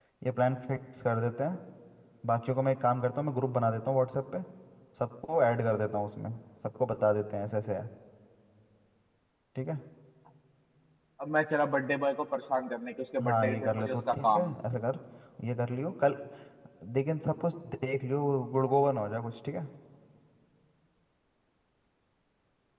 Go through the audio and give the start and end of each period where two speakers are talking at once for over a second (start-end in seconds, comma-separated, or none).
13.2-14.5